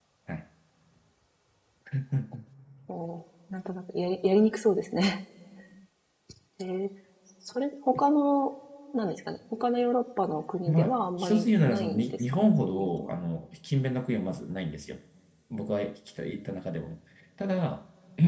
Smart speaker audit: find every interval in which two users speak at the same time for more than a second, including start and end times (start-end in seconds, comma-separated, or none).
10.7-13.1